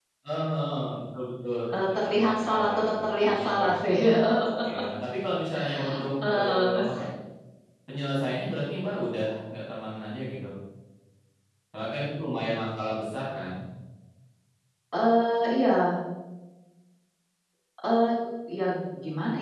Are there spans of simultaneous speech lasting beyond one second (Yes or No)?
Yes